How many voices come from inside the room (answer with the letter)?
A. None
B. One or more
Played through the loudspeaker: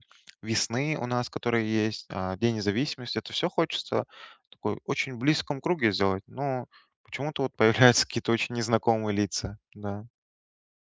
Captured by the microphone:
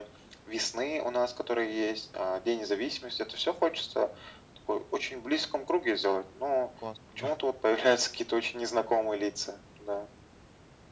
B